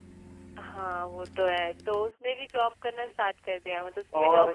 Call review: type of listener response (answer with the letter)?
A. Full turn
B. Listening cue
A